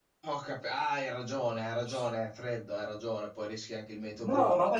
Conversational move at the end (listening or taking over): taking over